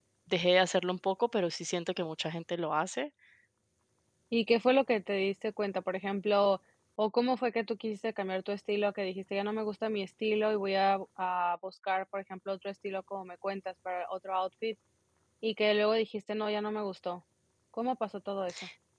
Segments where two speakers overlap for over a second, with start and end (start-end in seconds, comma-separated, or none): none